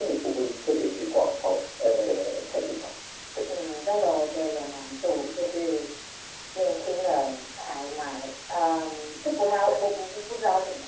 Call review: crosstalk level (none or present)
none